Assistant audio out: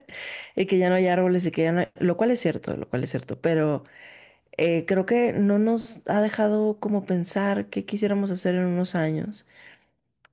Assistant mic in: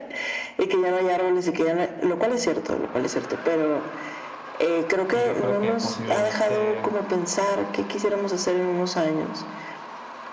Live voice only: Y yo creo que posiblemente

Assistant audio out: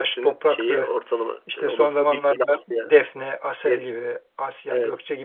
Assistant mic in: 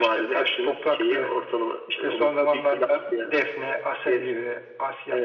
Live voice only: none

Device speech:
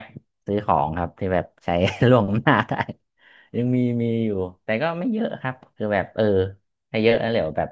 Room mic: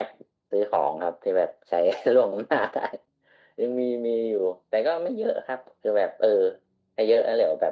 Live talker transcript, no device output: none

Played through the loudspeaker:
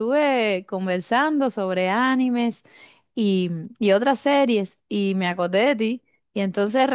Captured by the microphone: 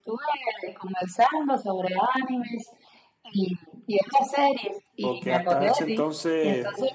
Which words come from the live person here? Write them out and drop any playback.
porque hasta ese entonces

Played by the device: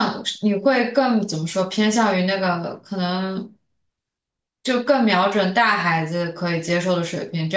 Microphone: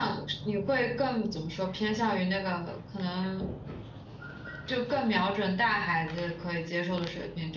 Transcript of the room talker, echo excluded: none

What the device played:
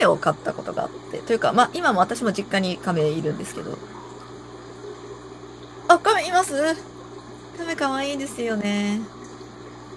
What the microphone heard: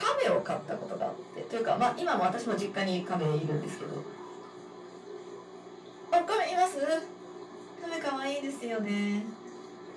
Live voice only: none

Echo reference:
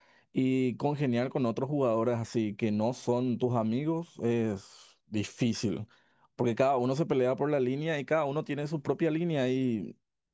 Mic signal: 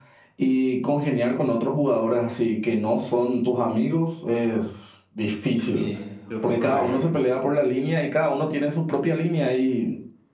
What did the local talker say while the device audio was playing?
Sí, tu rol preferido.

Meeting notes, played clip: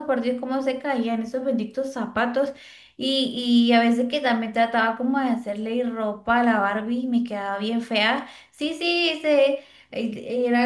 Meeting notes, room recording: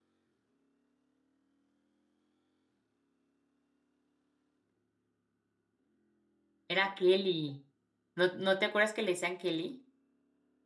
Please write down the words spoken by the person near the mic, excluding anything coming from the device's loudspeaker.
Era Kelly. ¿No, no te acuerdas que le decían Kelly?

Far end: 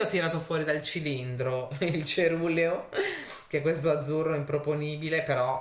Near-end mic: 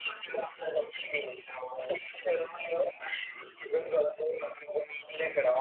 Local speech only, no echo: none

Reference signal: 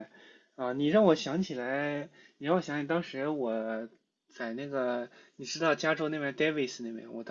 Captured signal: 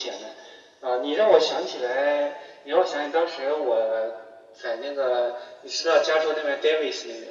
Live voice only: none

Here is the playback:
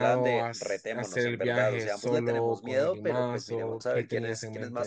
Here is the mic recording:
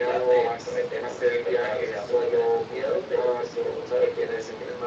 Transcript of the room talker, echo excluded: none

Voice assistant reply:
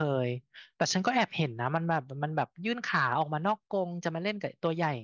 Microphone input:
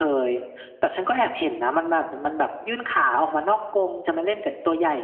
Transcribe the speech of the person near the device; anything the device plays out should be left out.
none

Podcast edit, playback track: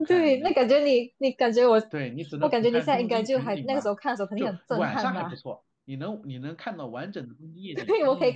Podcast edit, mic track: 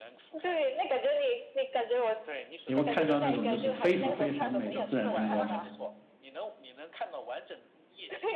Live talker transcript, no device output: 你会看到那种就是非常非常美的自然风光，

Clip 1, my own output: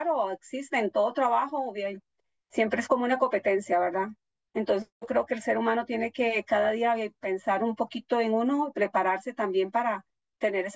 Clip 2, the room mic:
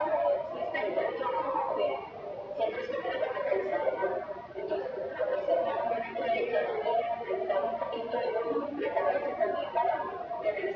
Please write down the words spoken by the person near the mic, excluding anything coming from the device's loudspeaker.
none

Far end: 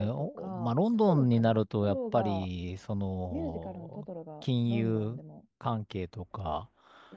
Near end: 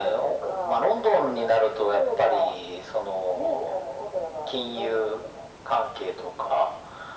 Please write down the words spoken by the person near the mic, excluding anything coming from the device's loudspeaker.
none

